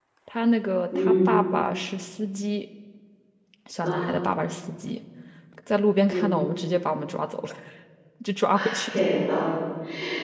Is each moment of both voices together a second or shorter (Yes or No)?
Yes